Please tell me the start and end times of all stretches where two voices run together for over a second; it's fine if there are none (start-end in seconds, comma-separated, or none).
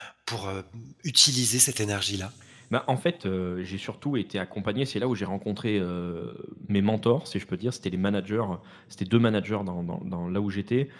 none